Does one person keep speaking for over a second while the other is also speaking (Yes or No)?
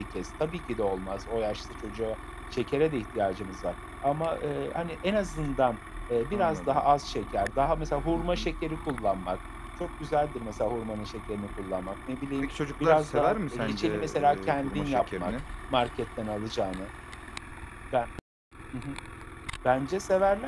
Yes